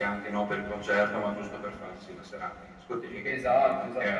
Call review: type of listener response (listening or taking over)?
taking over